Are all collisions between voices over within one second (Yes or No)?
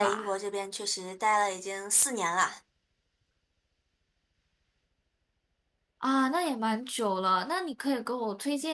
Yes